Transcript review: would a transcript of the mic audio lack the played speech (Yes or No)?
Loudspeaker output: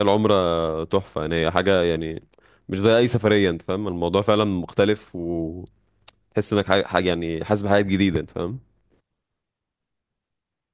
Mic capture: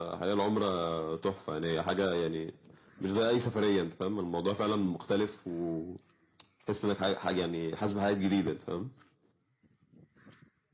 No